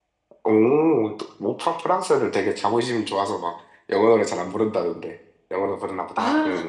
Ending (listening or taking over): taking over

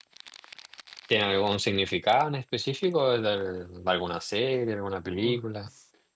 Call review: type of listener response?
taking over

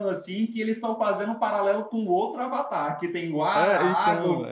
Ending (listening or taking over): taking over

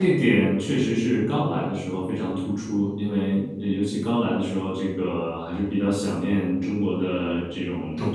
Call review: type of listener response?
listening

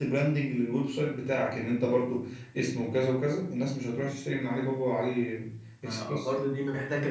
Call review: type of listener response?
taking over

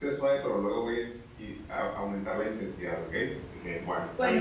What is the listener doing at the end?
taking over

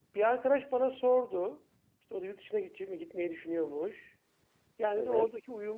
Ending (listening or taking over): listening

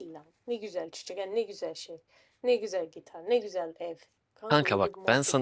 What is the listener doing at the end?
taking over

